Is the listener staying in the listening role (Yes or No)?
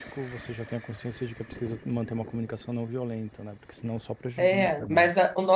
No